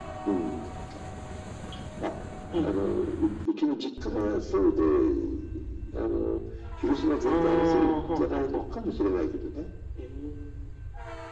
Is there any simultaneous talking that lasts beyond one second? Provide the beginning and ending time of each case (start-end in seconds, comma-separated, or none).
7.2-8.6